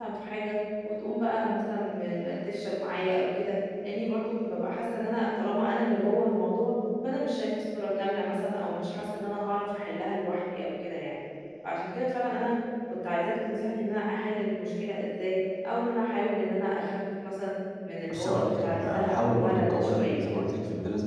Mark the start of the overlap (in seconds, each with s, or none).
18.1 s